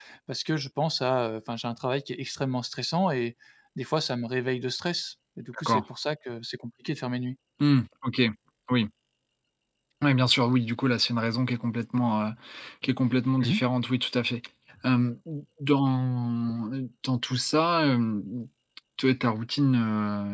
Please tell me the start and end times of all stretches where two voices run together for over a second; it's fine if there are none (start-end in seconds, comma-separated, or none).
none